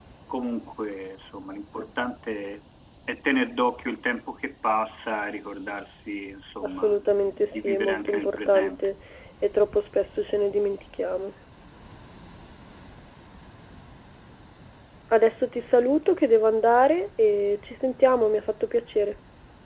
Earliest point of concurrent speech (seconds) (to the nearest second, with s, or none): 7 s